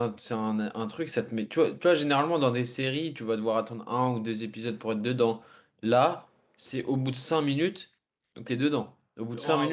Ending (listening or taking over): taking over